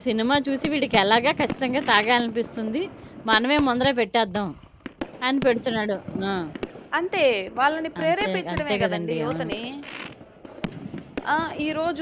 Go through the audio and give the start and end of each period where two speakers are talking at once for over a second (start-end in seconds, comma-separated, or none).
8.0-9.5